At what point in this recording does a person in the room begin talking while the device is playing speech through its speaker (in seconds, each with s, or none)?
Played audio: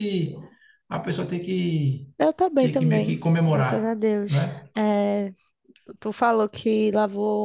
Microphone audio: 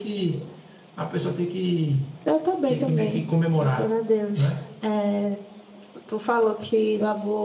none